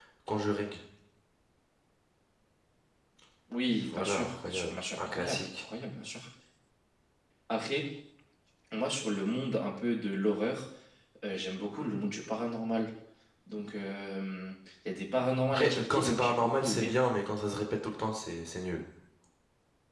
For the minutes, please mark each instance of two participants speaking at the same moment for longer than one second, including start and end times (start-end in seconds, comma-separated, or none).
3.9-5.5, 15.5-17.0